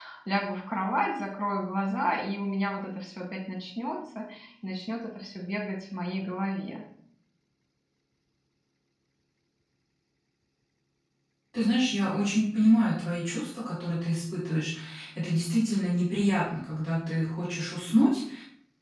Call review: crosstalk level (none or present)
none